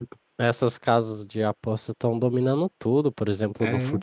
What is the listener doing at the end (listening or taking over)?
listening